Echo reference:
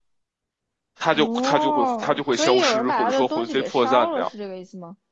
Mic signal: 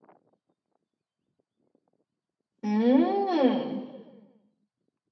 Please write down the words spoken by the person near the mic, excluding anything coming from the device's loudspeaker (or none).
嗯，